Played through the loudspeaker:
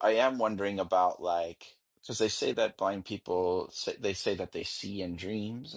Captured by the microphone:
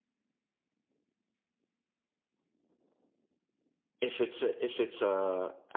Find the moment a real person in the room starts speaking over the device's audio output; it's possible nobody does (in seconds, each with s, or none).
4.0 s